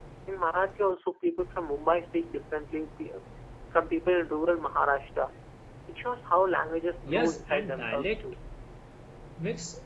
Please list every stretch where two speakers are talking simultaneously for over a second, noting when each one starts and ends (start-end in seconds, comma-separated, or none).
7.0-8.2